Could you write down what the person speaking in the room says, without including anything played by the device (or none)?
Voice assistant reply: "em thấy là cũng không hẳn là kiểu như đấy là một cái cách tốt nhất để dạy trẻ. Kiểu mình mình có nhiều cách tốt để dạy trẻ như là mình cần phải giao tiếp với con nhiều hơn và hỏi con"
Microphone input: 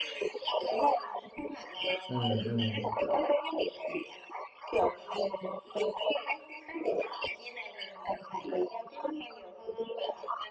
ừ ừ